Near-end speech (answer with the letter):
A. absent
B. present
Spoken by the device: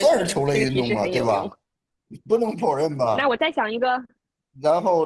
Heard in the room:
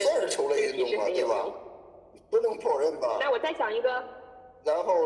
A